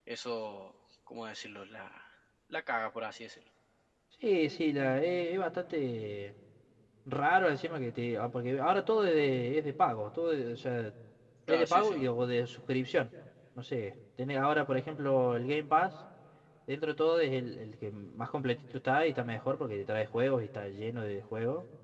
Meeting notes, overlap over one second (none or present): none